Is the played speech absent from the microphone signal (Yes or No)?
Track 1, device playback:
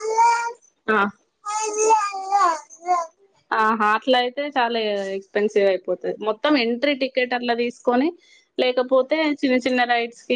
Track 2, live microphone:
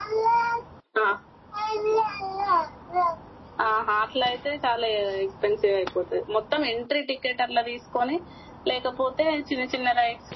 No